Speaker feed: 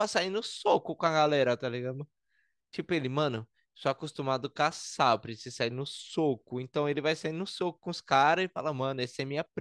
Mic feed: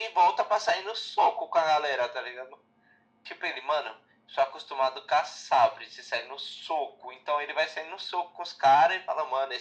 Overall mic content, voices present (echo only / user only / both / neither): echo only